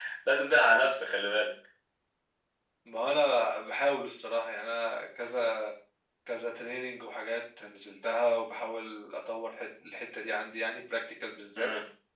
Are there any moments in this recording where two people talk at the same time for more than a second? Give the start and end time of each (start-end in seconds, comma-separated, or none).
none